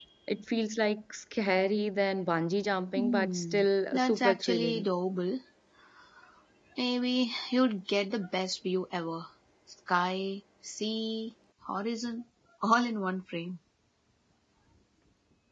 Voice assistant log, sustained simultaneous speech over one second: present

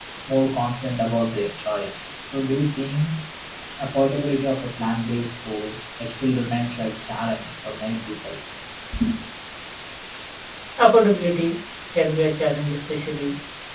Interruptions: none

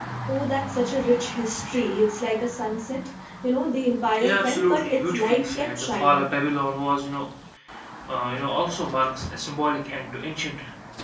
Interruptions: present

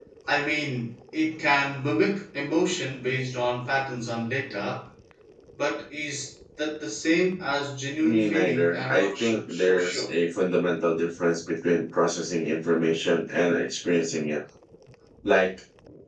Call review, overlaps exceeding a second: present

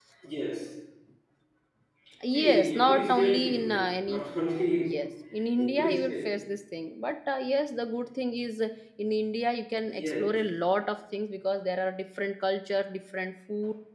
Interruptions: present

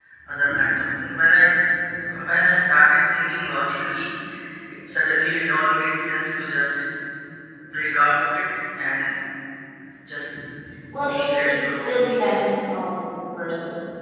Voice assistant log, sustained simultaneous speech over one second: present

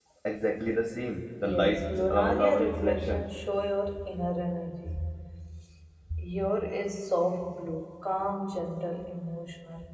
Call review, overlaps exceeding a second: present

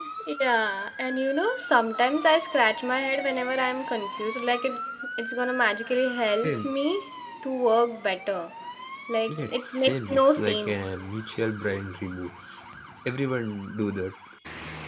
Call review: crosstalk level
present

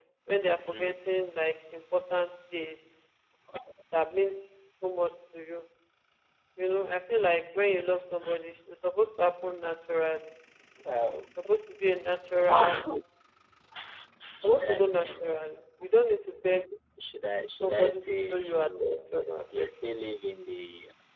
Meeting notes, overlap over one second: present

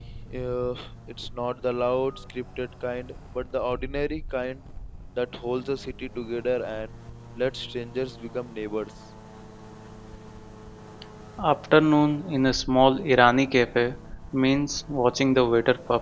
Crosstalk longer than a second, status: none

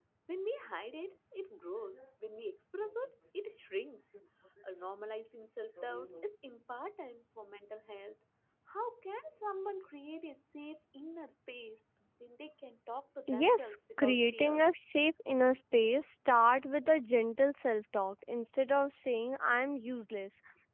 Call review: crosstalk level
present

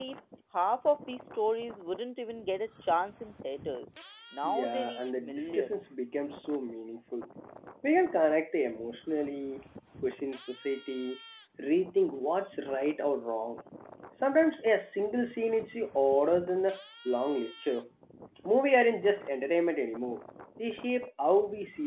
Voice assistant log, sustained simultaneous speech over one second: present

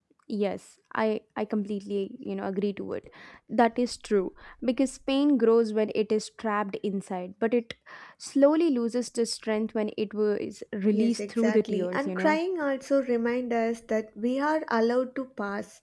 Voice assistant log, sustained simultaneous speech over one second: present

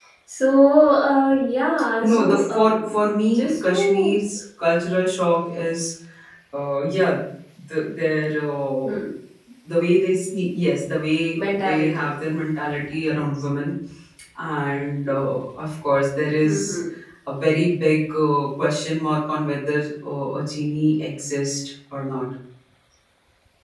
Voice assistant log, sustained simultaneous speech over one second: present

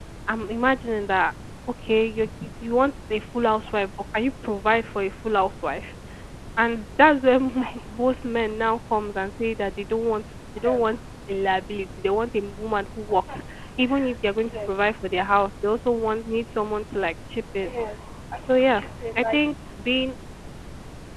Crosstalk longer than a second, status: none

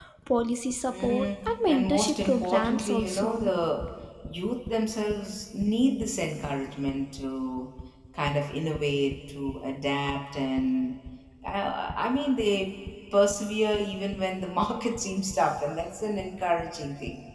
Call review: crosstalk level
present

